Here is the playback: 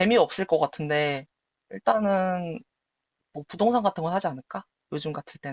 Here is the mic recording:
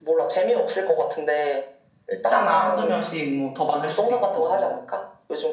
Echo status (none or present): present